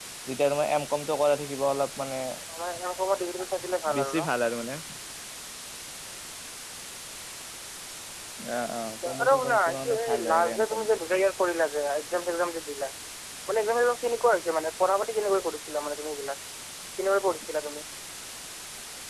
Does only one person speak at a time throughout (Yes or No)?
No